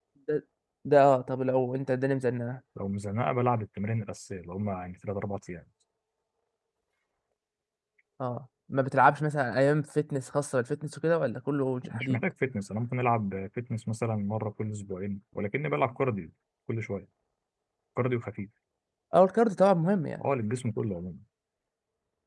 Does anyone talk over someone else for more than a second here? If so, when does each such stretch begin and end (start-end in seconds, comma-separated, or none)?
none